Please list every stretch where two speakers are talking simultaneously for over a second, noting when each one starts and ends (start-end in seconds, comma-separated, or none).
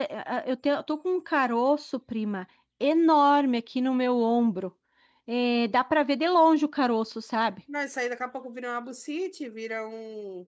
none